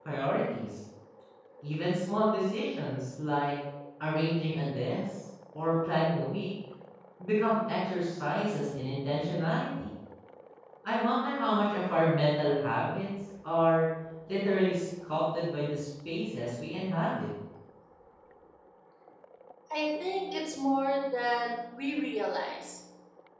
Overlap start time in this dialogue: none

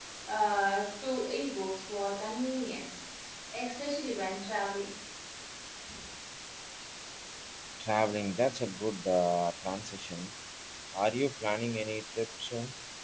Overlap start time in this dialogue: none

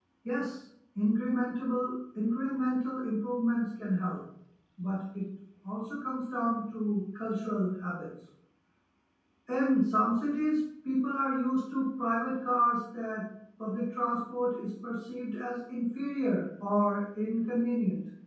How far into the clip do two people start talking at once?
none

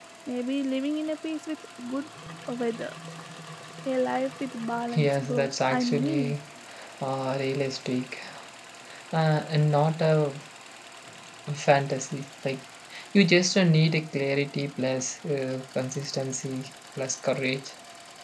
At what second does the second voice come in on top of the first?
4.9 s

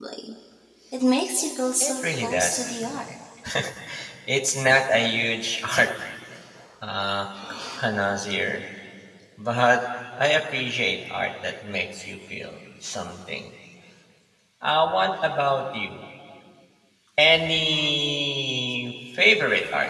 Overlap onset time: 1.8 s

